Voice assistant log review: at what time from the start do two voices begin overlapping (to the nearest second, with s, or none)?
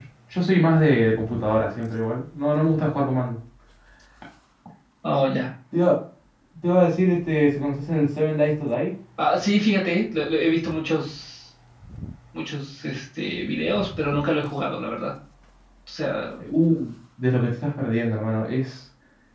none